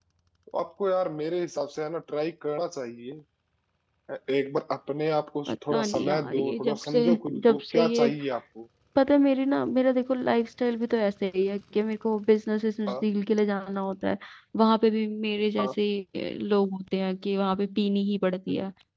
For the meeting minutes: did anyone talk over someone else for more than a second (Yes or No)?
Yes